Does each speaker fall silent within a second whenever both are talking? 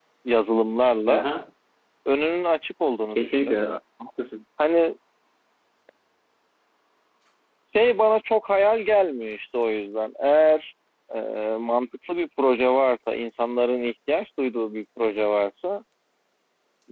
Yes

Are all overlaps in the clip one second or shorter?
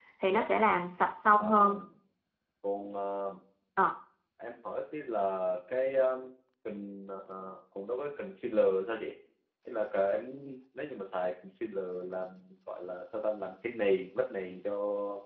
Yes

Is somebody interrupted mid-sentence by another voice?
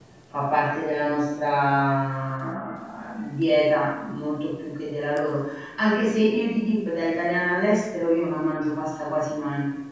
No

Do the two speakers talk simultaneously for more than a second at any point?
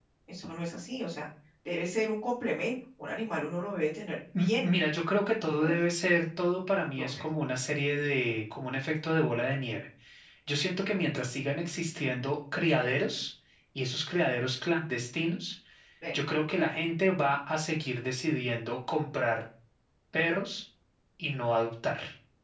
No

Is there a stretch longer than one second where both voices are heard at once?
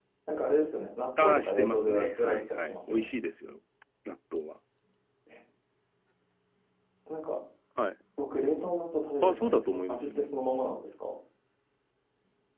Yes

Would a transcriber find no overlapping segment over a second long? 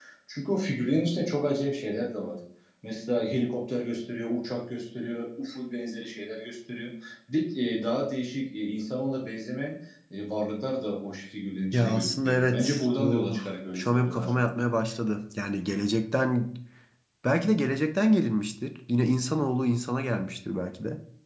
No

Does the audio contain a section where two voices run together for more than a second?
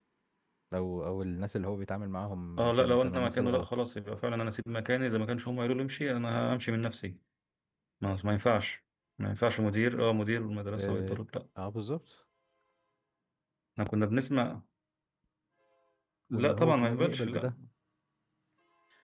Yes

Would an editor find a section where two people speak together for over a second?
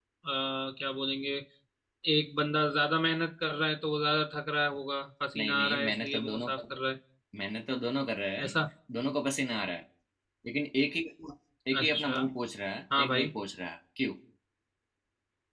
Yes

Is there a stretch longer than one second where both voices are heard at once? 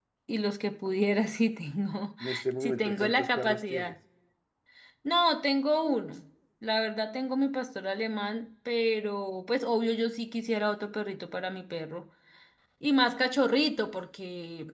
Yes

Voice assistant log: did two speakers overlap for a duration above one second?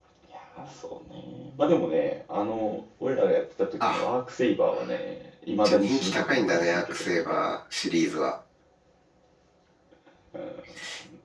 Yes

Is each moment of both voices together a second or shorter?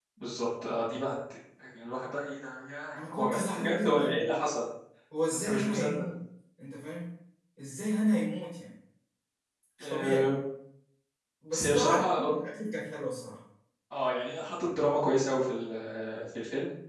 No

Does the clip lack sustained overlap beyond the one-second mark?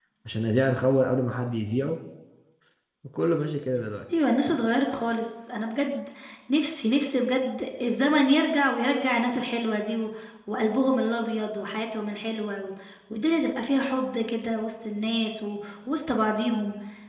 Yes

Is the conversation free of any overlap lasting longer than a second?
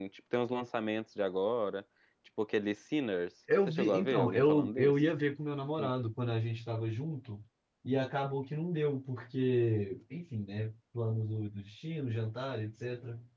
No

